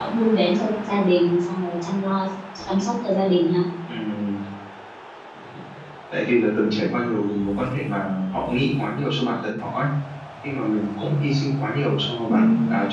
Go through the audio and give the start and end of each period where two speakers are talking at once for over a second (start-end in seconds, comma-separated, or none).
none